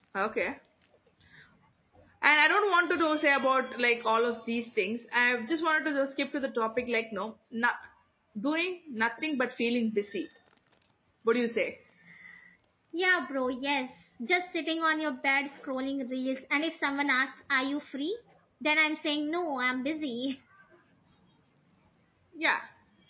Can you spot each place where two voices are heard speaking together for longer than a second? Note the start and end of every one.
none

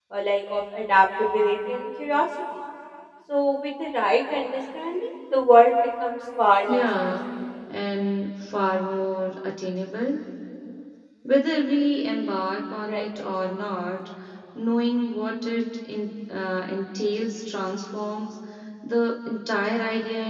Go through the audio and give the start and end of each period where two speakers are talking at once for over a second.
none

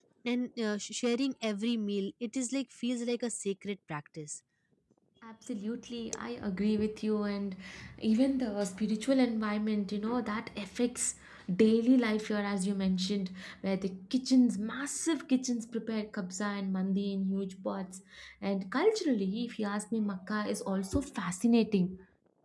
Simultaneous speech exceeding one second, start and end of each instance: none

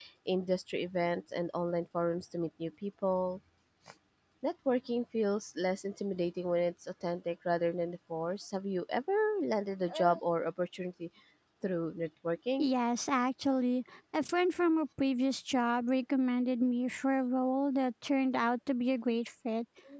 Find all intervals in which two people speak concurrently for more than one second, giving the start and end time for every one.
none

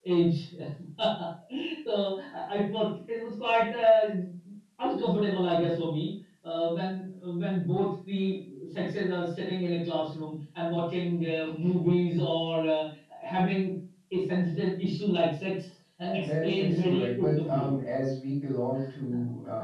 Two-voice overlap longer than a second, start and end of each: 16.0-17.7

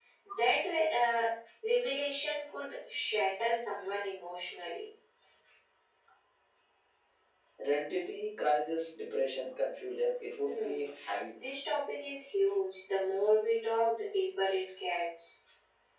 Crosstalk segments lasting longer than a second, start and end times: none

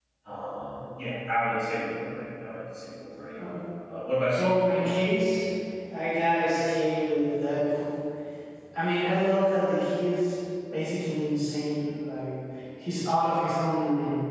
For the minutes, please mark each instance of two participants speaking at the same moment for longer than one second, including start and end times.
none

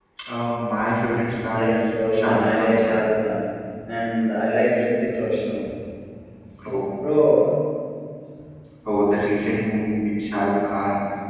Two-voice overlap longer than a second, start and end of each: 1.5-3.0

